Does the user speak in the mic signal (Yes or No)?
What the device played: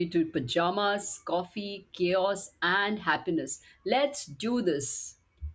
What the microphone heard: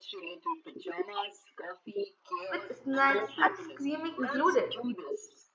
Yes